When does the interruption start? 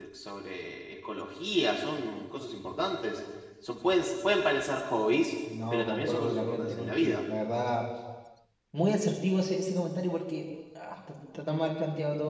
5.7 s

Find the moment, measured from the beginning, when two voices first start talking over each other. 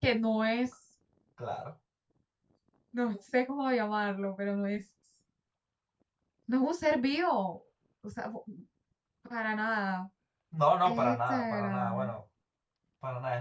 10.8 s

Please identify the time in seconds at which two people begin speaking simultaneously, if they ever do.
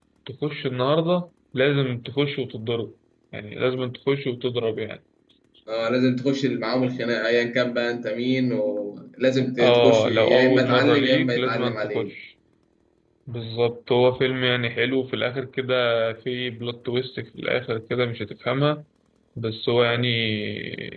9.6 s

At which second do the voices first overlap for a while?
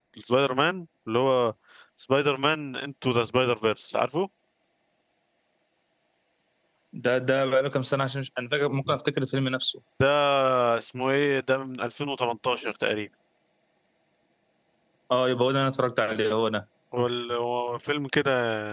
none

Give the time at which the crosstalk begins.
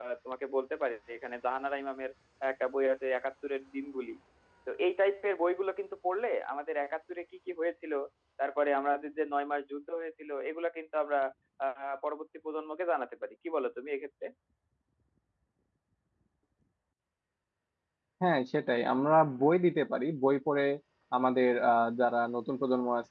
none

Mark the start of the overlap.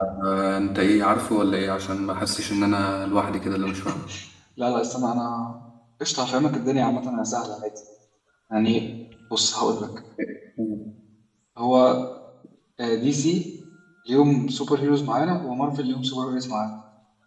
none

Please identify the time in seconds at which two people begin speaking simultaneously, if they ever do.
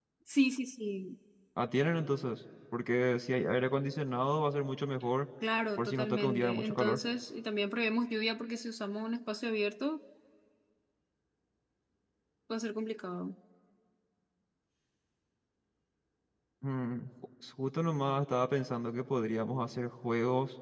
5.8 s

